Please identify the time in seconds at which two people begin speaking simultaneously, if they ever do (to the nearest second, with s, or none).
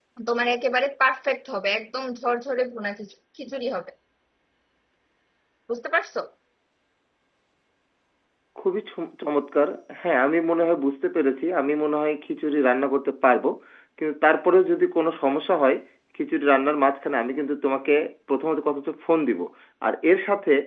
none